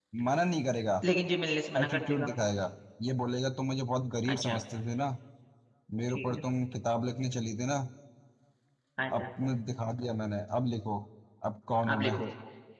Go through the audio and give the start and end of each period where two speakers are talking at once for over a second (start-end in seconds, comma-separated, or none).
none